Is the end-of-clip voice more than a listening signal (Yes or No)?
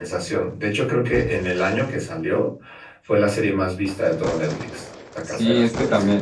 Yes